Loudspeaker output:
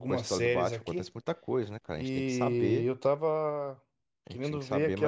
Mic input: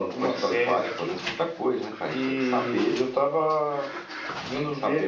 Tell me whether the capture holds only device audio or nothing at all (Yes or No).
Yes